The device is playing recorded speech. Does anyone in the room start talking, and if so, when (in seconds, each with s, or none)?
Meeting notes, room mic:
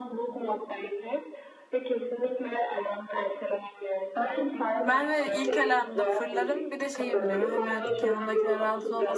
4.8 s